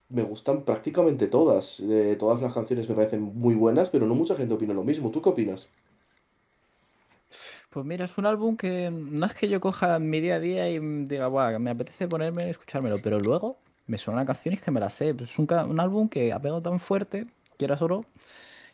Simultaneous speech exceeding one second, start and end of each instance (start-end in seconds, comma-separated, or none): none